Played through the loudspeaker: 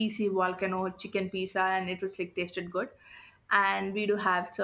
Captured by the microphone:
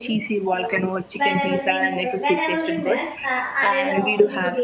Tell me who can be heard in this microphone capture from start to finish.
both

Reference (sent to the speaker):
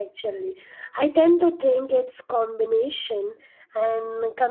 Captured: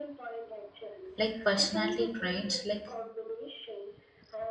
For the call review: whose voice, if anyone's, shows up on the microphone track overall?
both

